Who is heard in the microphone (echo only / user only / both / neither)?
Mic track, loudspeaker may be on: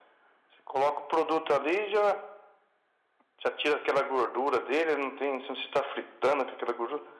echo only